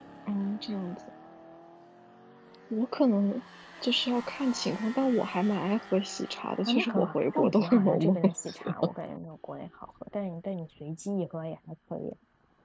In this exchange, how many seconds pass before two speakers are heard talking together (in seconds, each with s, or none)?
6.7 s